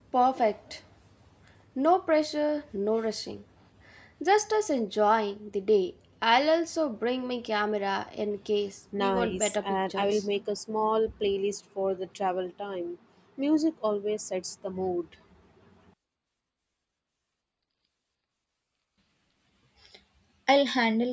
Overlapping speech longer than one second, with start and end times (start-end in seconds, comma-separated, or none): 9.0-10.2